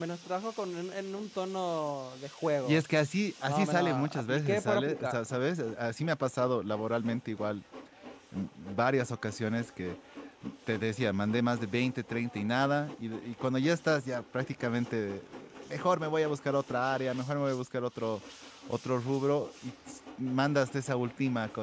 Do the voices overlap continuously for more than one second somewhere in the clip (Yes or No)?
Yes